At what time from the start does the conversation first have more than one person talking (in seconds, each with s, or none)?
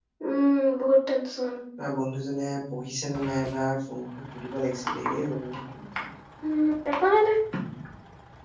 none